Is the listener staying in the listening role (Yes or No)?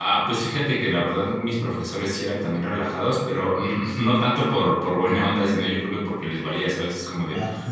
Yes